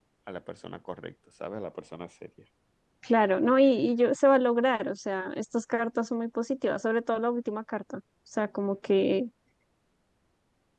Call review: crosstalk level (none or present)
none